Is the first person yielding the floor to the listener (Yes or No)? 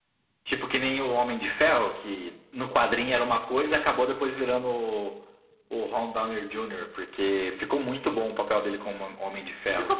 Yes